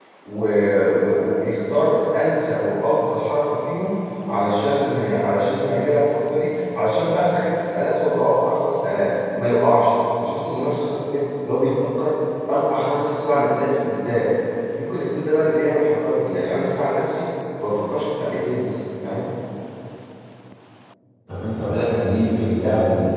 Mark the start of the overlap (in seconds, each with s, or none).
none